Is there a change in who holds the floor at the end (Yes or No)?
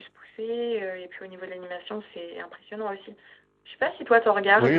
Yes